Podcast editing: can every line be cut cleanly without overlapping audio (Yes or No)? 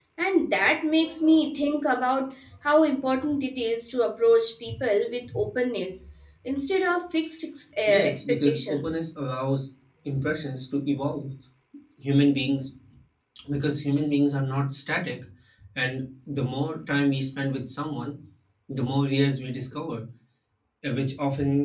No